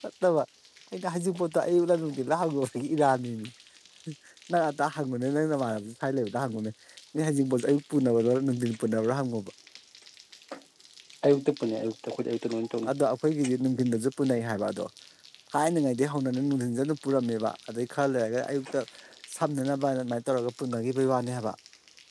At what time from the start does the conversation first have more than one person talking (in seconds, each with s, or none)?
none